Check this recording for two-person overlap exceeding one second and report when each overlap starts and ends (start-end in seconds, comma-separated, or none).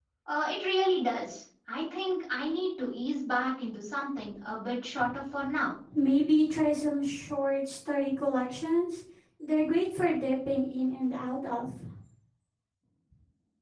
none